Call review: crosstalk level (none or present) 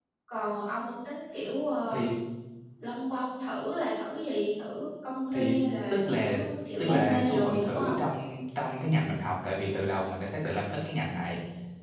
present